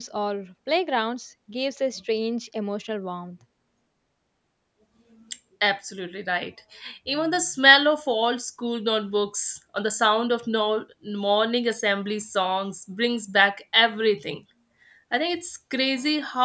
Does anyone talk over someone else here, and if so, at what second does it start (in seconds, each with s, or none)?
none